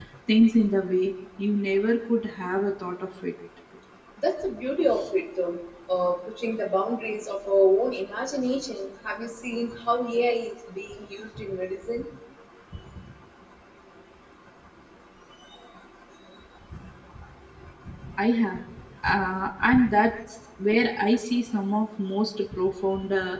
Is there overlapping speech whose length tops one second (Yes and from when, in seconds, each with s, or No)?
No